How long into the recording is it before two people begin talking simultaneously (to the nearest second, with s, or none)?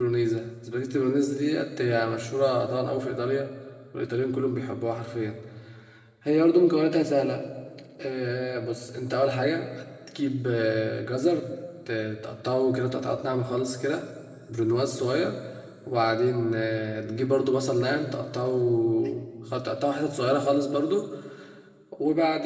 none